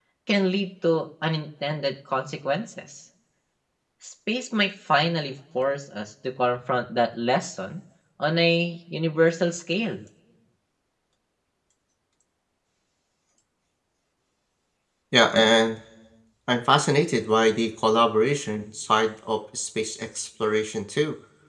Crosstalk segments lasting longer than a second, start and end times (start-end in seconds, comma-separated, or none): none